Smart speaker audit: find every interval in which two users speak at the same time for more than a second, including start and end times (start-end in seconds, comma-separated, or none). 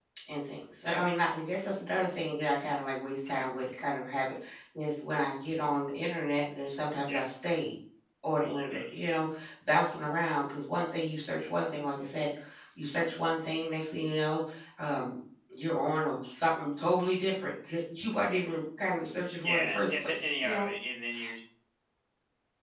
19.4-20.7